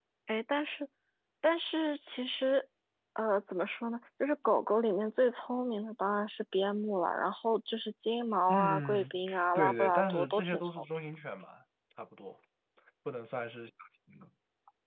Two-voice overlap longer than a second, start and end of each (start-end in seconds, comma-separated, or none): 8.5-10.8